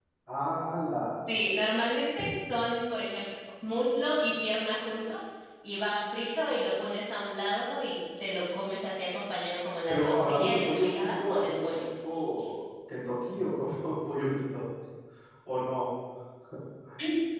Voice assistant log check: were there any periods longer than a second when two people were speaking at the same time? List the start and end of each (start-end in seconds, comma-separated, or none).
9.9-11.8